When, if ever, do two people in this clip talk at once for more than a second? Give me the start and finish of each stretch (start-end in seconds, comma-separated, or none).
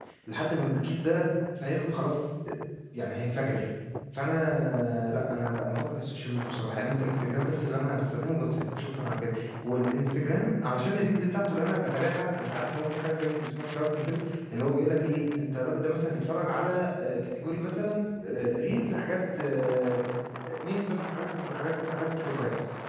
none